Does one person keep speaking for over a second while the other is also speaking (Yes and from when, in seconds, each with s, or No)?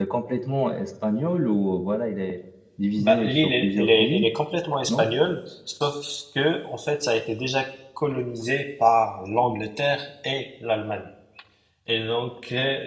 Yes, from 3.0 s